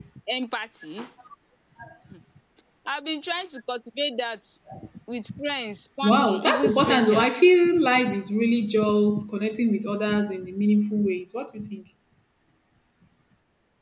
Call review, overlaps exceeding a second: present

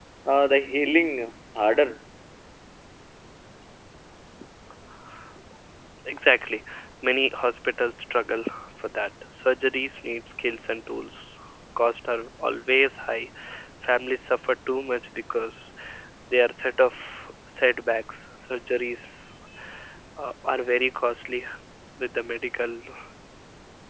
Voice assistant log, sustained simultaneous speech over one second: none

